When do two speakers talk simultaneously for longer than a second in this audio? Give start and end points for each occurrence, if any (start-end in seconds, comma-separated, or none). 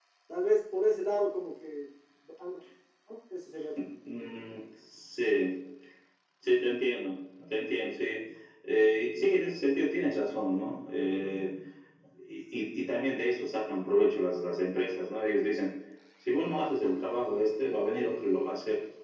none